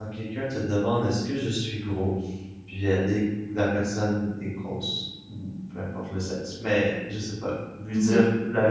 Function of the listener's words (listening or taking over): listening